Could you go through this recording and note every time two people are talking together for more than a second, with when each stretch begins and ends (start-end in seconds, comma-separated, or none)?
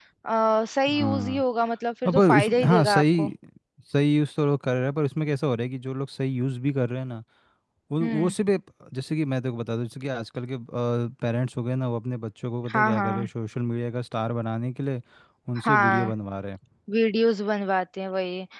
2.0-3.3